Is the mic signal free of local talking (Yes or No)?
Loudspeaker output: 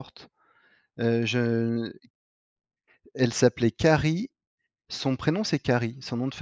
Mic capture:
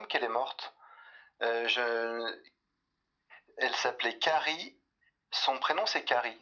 Yes